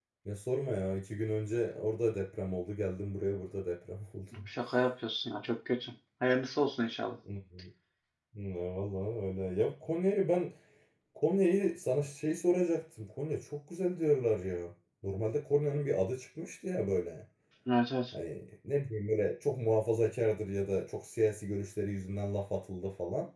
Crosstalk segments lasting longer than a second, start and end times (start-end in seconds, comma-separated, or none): none